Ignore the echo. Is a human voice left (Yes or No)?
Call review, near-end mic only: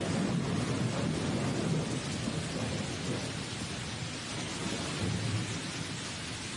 No